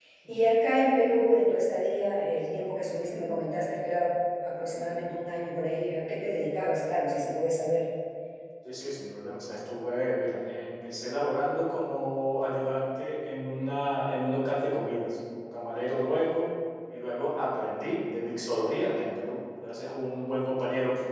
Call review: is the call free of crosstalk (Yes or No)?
Yes